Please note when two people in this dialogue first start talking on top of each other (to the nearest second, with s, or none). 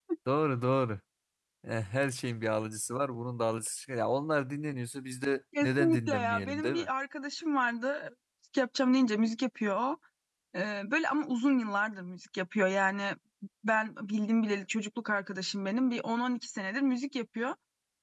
6 s